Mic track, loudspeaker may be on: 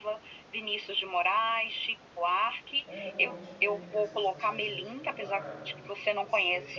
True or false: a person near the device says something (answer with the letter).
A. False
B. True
B